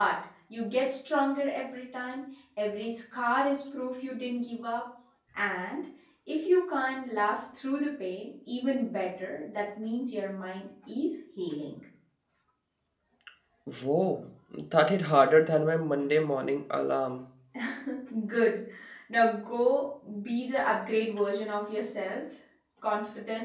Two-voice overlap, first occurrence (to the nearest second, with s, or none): none